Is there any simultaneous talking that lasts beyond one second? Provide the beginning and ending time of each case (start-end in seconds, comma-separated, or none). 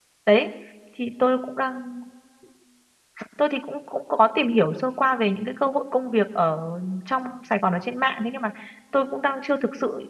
none